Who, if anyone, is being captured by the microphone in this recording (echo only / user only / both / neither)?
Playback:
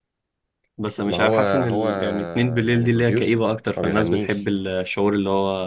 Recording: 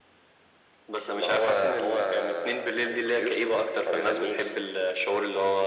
echo only